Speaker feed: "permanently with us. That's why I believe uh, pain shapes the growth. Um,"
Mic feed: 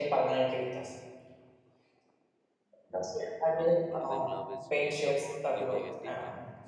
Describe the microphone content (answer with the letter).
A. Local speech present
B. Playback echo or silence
A